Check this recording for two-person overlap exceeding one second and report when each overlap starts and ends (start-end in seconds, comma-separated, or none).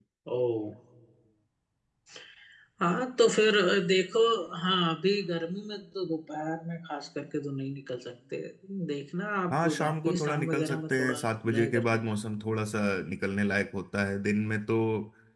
9.5-12.0